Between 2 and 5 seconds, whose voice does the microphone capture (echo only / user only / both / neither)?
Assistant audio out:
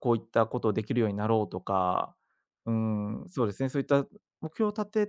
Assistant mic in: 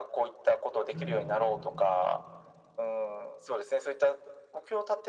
echo only